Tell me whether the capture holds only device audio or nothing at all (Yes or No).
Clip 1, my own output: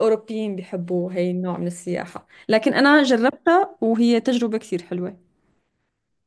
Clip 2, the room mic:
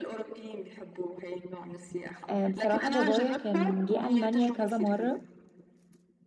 No